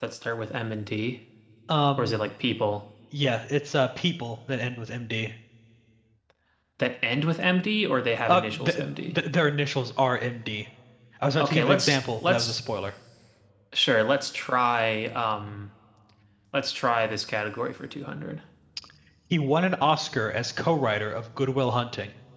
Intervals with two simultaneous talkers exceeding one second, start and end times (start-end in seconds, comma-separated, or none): 11.4-12.6